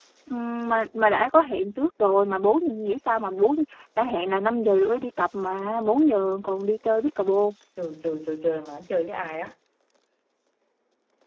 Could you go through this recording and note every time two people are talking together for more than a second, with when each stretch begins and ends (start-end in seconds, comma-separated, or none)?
none